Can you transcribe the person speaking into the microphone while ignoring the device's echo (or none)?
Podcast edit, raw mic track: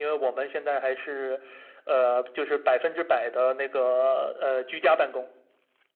none